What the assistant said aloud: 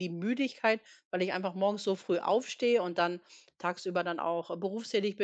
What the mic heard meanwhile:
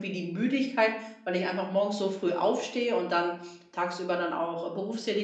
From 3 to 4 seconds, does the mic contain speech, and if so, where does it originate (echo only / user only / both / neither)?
echo only